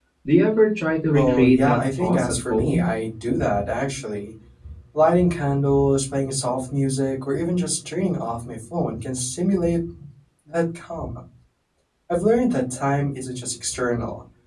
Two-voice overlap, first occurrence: 1.1 s

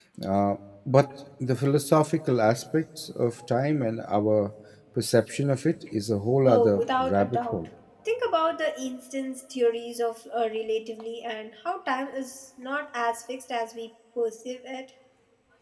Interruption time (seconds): 6.4 s

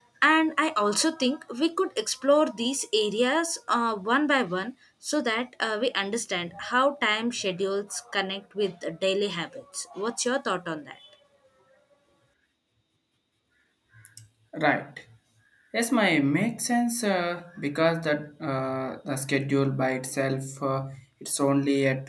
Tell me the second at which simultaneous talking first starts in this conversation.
none

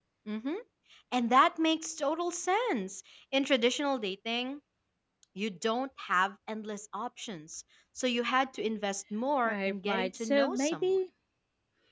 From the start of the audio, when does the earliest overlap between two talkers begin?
9.4 s

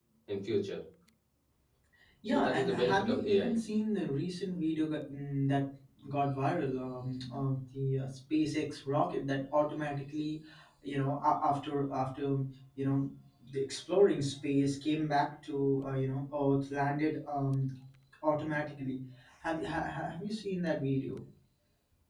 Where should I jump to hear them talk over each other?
2.2 s

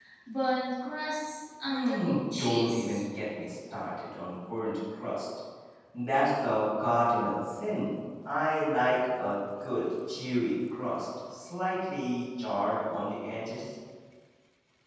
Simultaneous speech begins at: 1.7 s

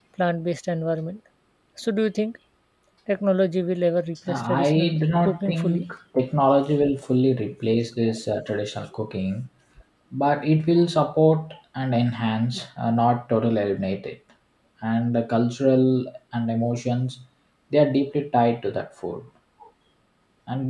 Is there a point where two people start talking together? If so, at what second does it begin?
4.3 s

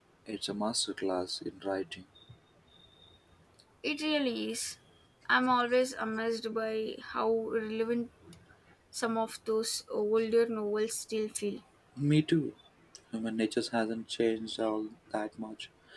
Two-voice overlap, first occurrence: none

